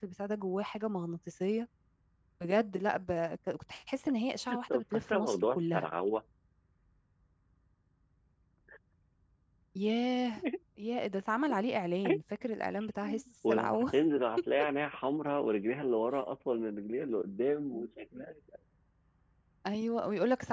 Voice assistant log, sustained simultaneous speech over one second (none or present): present